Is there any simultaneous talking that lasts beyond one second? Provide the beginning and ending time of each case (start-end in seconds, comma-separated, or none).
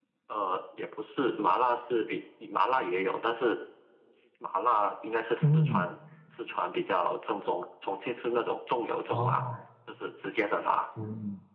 none